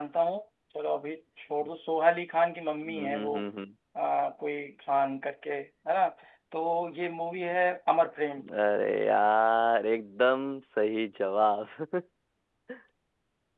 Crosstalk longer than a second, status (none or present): none